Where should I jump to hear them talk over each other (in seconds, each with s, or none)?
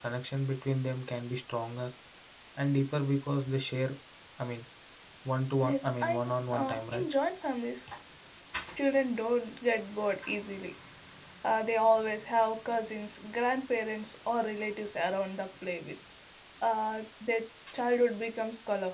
5.6 s